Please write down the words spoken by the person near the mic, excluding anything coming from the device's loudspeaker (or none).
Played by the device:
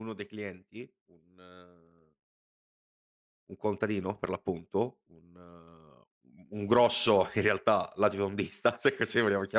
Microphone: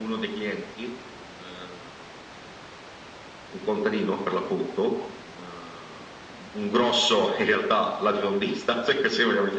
none